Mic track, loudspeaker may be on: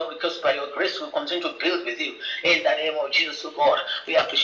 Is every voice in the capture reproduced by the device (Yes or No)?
Yes